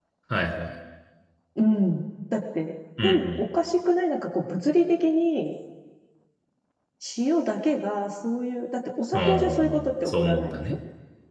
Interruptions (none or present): present